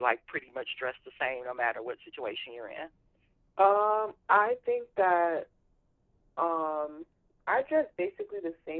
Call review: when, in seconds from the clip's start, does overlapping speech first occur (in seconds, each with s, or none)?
none